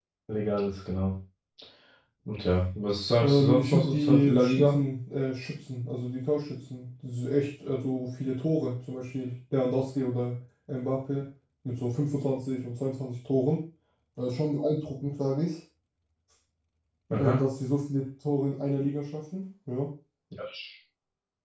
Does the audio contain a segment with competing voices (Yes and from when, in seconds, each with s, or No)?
Yes, from 3.2 s